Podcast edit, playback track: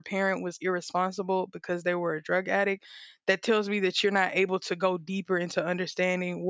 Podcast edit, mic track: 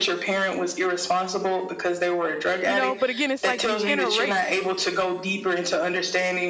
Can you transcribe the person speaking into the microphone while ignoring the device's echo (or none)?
you know. But again, it's like you can't erase.